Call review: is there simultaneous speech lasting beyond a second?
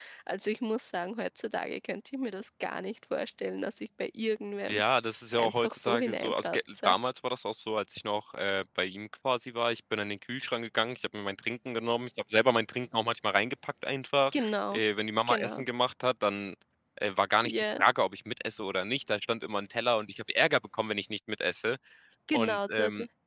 Yes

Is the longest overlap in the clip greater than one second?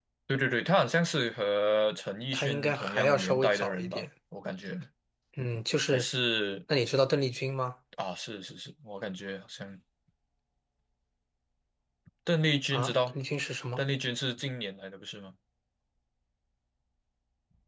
Yes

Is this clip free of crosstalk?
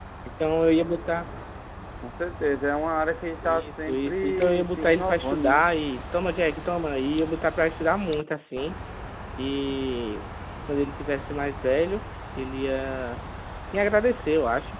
No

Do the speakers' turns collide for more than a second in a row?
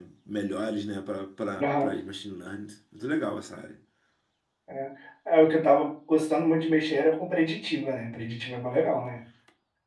No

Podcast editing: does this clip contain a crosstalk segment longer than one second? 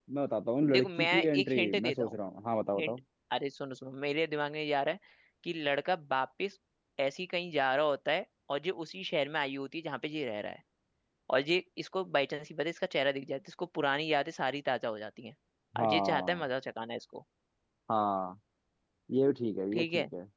Yes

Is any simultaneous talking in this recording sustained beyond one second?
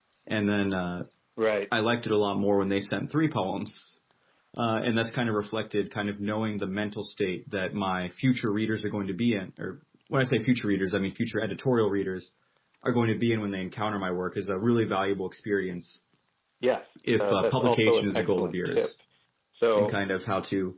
Yes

